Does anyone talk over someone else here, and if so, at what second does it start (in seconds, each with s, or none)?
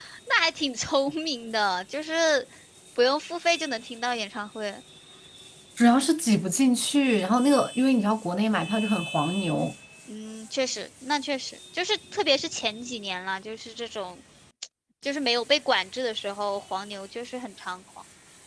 none